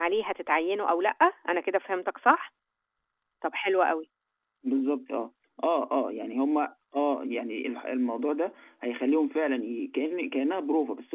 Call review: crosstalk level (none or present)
none